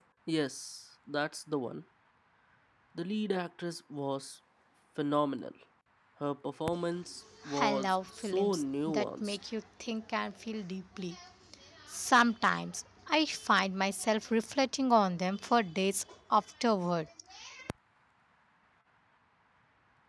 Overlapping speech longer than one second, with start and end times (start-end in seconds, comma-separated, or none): 7.6-9.4